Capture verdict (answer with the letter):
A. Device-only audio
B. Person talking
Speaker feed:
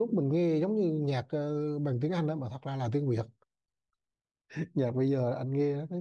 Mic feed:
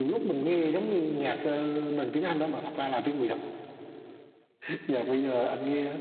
A